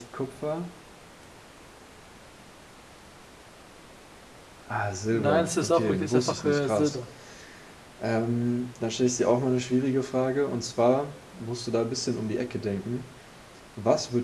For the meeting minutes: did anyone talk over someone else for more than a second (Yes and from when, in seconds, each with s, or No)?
Yes, from 5.1 s